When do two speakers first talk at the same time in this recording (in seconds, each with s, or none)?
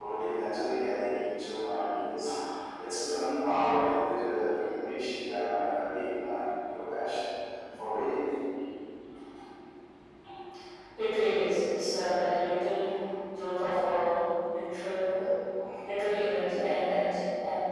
none